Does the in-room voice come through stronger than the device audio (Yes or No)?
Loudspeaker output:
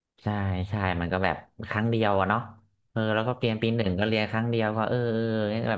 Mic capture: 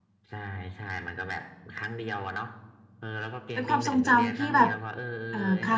Yes